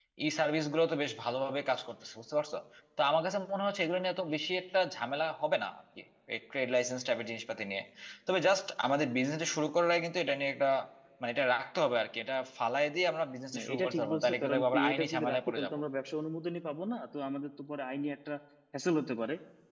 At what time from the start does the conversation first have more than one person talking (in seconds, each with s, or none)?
13.5 s